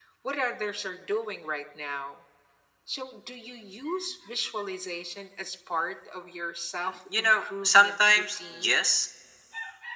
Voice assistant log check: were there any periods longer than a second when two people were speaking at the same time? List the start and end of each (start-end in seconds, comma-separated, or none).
7.2-8.8